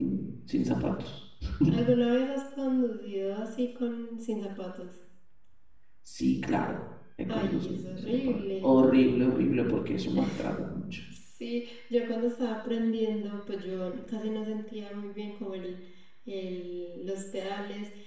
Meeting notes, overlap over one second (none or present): present